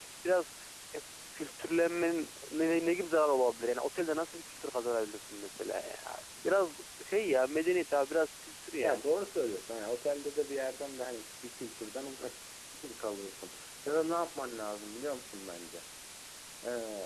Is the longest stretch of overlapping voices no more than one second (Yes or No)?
Yes